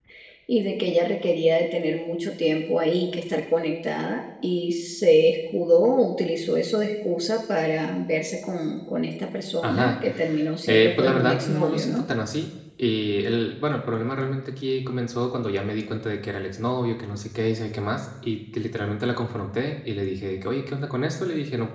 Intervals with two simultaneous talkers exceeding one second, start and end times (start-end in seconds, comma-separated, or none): 10.7-12.0